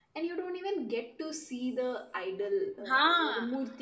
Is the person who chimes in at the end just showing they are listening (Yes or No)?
Yes